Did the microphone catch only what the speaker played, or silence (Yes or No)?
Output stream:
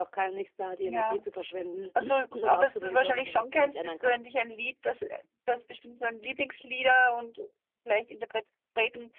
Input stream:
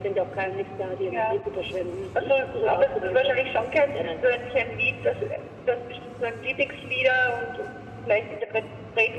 Yes